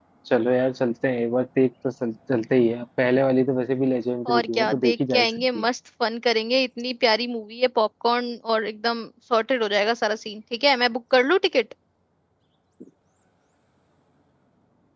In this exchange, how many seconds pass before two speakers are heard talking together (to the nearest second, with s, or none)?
4 s